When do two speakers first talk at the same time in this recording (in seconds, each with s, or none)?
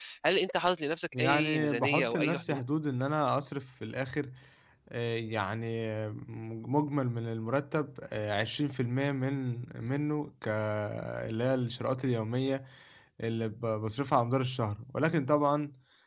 1.1 s